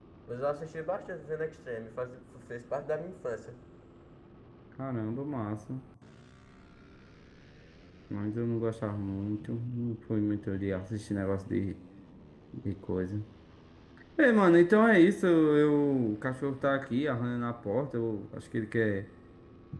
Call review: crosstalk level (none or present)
none